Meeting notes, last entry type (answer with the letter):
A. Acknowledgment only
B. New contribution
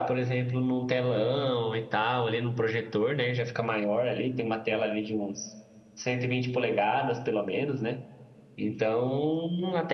A